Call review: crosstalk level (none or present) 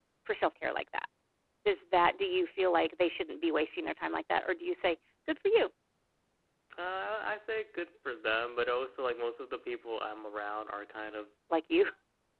none